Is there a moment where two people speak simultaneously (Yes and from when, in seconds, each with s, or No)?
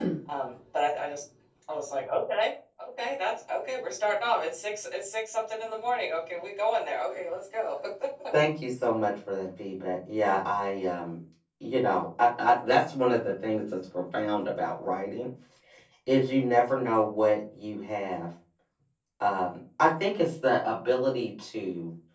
No